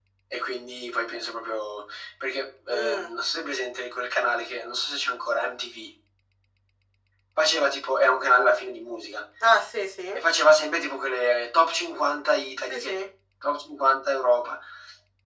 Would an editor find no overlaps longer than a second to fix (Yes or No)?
Yes